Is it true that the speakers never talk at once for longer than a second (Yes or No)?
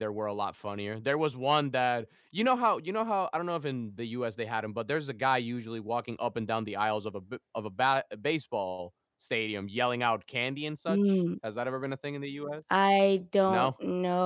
Yes